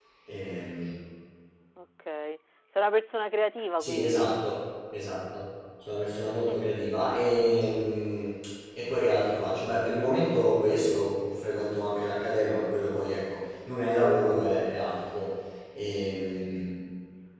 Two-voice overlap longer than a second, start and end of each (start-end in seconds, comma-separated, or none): none